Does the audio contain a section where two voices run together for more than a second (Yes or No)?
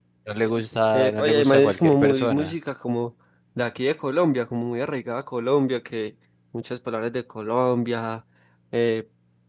Yes